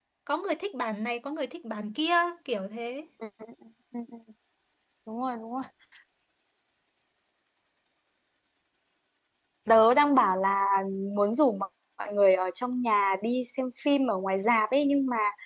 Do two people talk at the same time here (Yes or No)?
No